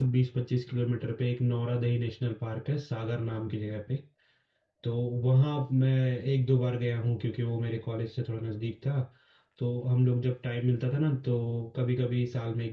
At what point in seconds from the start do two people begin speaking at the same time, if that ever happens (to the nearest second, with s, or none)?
none